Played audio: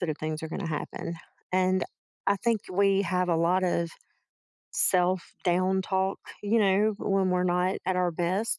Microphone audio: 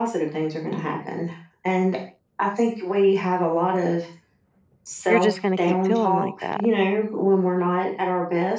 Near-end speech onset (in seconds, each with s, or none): 5.1 s